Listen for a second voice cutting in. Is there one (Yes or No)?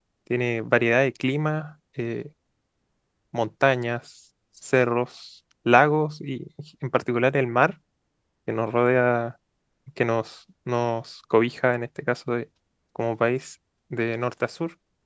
No